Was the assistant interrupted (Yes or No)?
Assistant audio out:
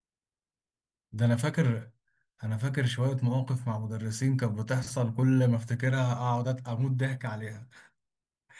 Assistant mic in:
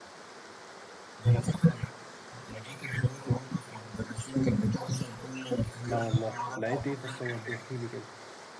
Yes